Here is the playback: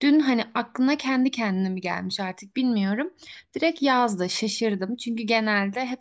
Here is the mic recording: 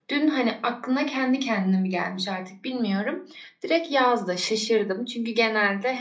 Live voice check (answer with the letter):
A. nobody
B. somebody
A